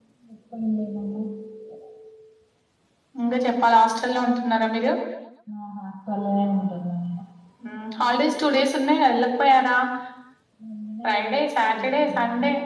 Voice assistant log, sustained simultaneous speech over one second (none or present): present